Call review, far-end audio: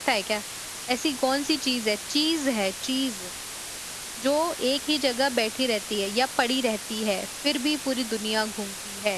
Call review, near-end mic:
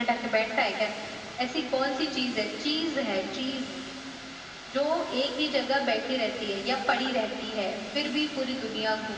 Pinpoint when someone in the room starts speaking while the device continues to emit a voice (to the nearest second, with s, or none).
none